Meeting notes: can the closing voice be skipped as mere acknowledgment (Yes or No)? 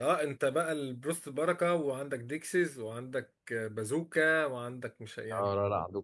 No